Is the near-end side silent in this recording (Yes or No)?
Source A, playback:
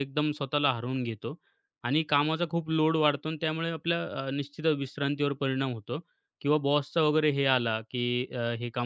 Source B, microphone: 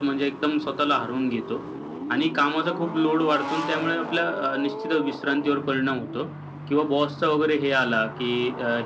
Yes